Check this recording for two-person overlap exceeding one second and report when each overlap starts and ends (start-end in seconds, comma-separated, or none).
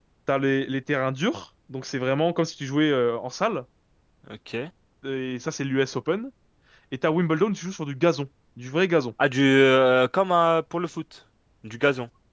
none